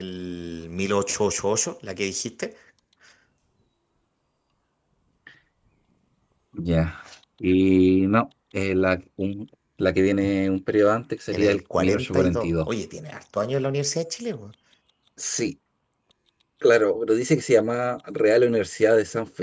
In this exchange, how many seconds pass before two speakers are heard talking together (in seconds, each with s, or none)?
11.3 s